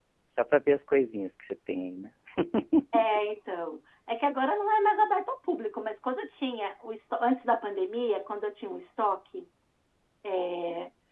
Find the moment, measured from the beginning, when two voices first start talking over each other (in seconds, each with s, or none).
none